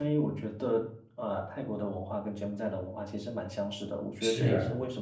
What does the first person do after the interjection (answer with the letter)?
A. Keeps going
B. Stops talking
A